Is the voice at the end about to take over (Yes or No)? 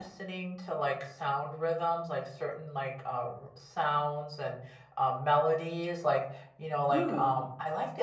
No